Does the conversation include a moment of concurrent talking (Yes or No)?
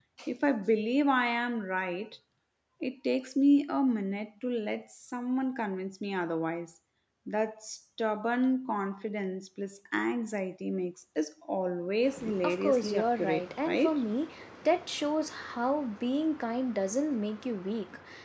Yes